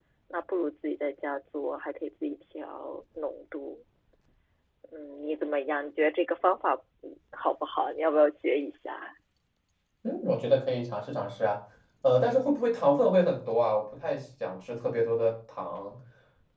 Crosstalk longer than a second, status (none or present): none